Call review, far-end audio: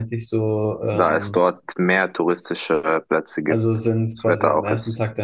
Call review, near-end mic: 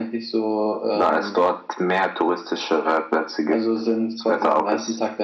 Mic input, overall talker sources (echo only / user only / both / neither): echo only